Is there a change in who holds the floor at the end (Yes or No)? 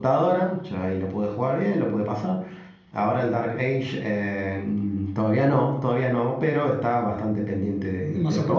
Yes